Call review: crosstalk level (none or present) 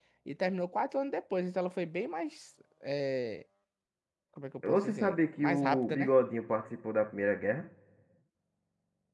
present